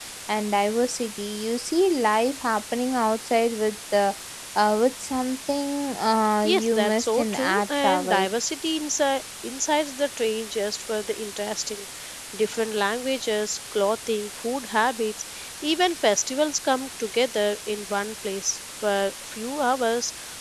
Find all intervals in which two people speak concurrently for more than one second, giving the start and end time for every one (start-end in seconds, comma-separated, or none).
6.4-8.3